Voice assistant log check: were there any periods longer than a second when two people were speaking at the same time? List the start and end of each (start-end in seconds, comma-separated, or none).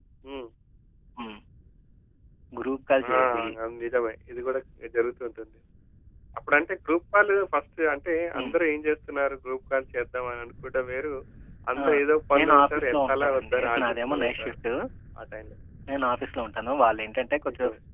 12.3-14.5